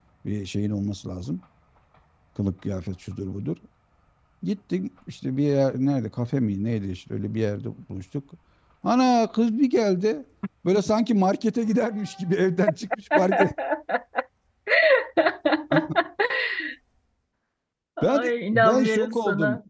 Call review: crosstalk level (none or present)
present